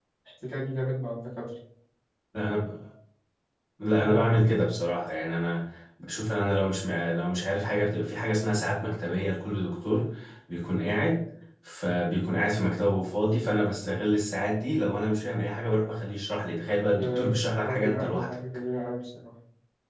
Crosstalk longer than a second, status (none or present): present